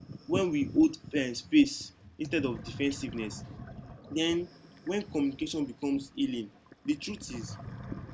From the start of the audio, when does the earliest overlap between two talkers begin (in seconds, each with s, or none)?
none